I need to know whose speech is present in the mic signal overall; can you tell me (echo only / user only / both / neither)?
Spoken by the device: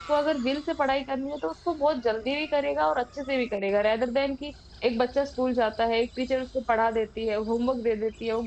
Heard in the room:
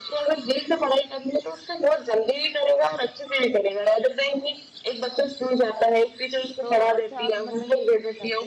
both